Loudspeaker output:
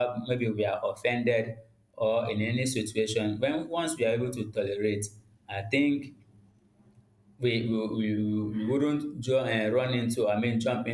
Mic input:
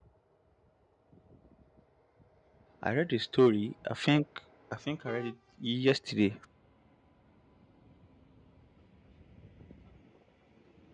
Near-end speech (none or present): present